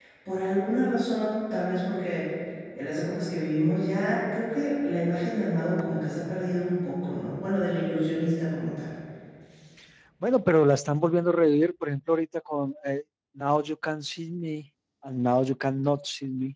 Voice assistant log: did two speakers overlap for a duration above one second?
No

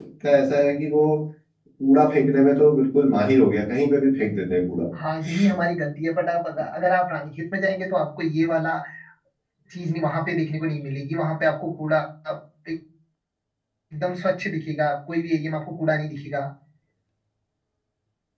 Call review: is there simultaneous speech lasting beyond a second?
No

